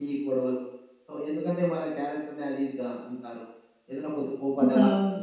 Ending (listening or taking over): listening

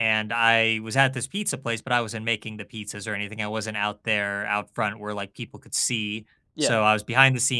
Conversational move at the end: listening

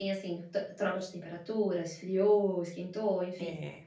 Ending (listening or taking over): taking over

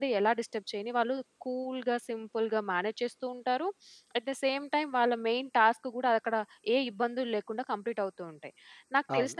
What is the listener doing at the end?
listening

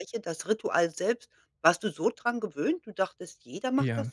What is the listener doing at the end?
taking over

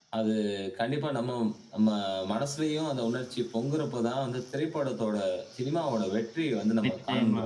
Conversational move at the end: taking over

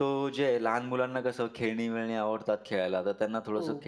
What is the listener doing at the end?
listening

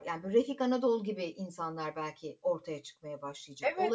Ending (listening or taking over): taking over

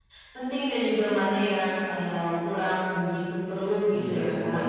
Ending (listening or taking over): taking over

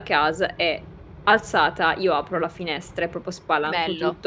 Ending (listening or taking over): listening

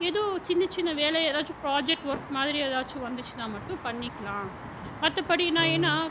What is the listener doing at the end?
listening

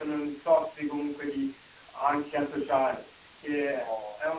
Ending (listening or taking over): listening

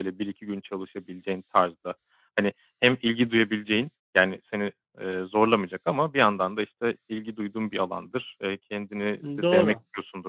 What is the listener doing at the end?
listening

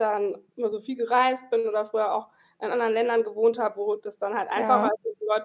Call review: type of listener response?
listening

